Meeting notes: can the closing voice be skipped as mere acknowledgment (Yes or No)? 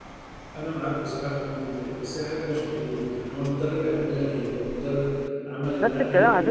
No